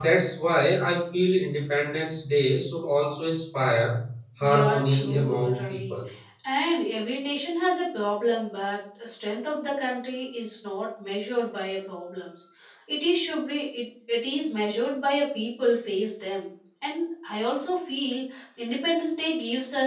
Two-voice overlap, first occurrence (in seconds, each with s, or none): 4.4 s